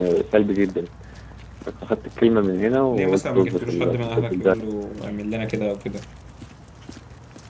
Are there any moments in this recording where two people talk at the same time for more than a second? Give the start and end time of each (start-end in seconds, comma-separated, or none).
2.9-4.6